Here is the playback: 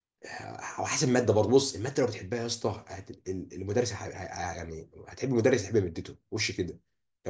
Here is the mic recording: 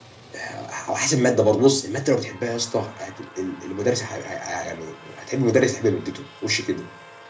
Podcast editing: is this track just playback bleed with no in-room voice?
Yes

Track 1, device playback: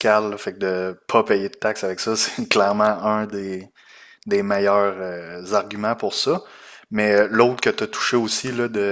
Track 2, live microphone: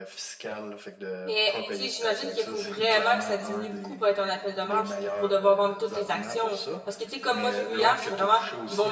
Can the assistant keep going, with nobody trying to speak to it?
No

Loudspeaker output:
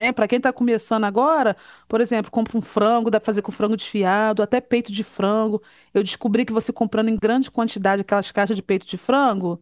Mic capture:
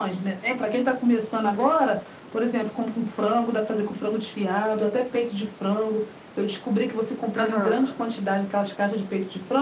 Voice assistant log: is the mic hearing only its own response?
No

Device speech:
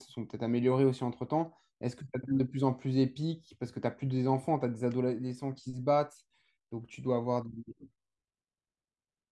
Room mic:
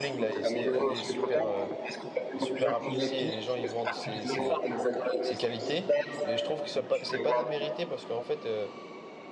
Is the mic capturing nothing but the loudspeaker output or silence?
No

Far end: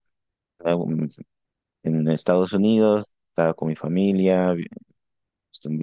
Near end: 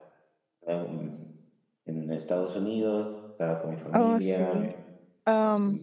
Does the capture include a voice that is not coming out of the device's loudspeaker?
Yes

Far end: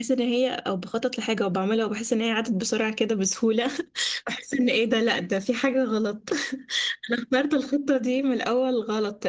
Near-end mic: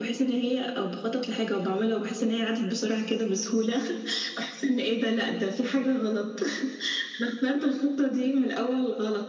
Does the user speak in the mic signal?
No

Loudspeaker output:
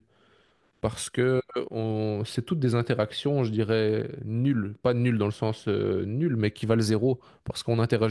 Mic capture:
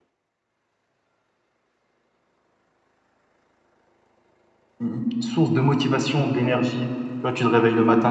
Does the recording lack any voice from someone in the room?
No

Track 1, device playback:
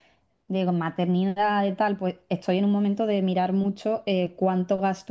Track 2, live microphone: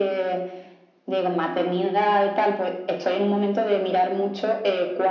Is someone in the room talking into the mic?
No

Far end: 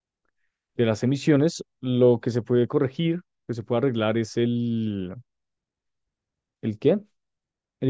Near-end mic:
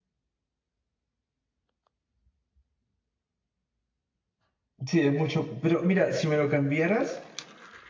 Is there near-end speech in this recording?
Yes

